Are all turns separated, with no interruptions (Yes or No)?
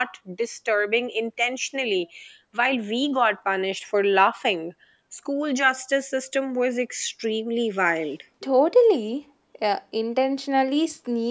Yes